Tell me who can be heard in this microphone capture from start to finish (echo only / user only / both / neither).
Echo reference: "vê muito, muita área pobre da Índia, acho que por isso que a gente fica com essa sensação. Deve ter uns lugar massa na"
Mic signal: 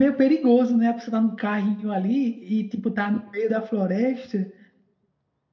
user only